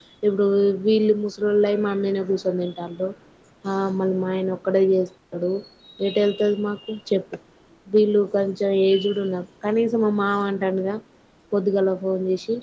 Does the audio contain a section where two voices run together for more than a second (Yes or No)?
No